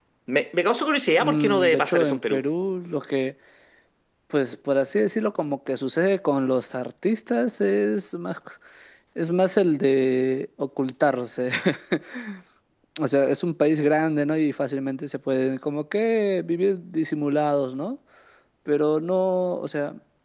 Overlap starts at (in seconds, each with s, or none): 1.2 s